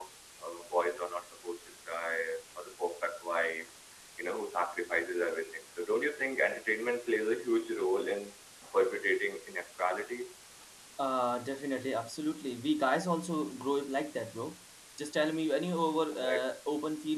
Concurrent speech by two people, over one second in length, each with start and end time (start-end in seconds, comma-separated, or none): none